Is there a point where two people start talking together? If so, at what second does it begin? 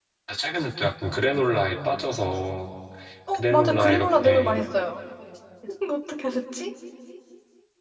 3.3 s

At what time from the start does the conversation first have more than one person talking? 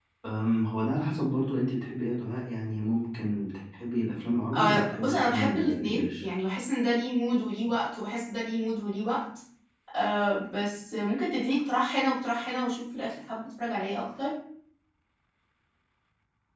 4.5 s

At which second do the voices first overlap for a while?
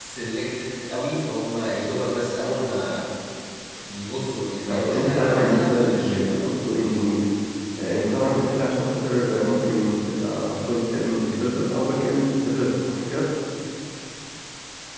4.7 s

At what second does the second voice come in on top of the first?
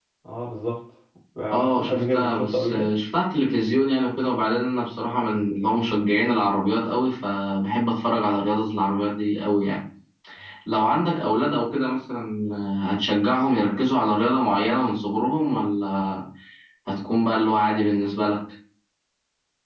1.5 s

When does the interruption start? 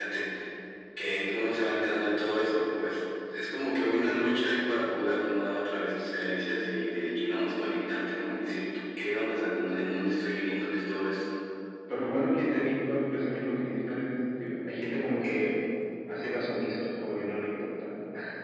none

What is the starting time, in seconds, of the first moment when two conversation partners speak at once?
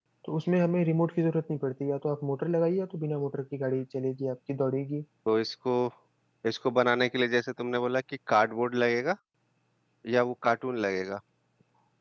none

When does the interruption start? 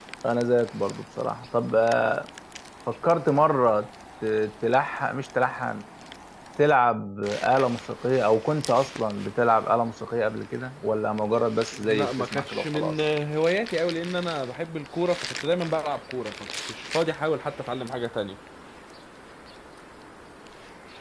11.7 s

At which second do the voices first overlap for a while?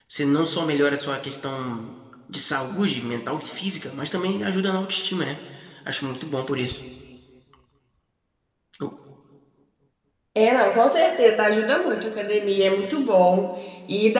none

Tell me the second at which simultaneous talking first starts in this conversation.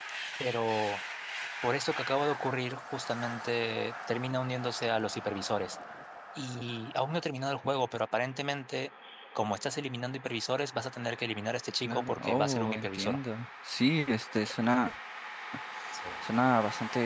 11.8 s

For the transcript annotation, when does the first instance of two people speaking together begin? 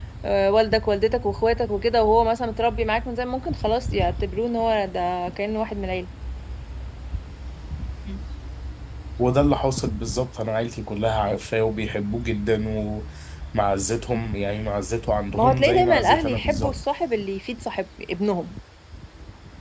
15.4 s

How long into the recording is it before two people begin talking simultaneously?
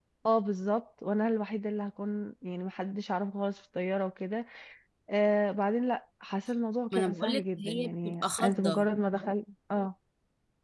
6.9 s

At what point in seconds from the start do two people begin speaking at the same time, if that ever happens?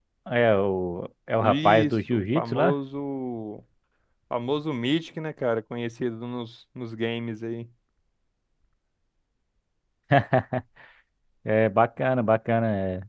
1.4 s

